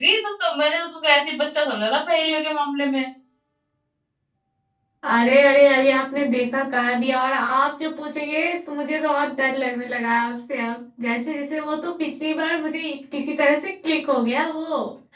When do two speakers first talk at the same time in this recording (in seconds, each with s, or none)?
none